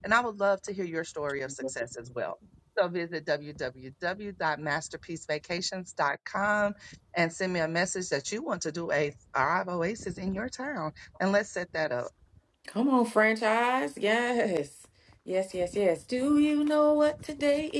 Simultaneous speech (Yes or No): No